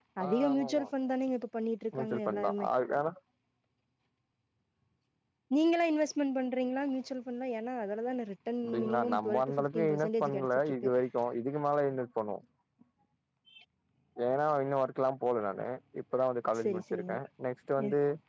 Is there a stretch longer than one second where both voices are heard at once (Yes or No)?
Yes